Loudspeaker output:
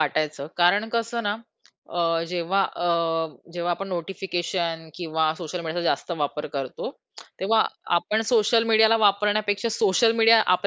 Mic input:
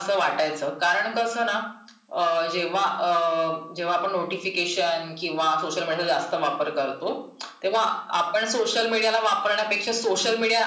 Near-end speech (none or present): none